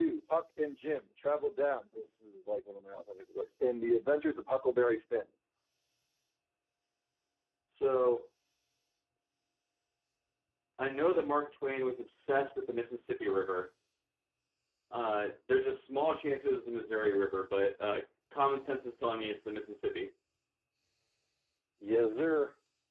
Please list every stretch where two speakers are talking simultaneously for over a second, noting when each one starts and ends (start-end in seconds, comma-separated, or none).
none